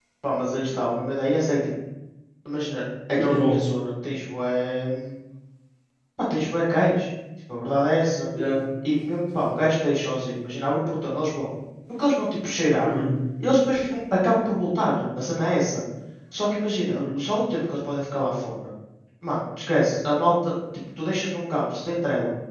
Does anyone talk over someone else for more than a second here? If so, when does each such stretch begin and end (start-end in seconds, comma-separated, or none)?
none